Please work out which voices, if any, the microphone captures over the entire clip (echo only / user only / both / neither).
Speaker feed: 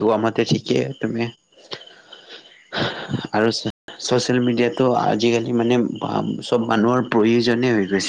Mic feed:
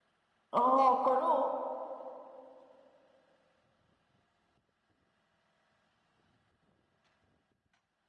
user only